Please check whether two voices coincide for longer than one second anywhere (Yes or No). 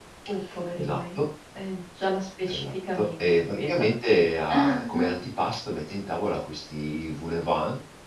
Yes